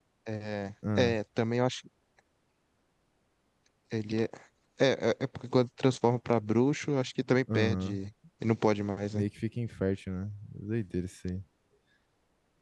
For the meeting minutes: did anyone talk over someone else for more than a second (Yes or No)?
No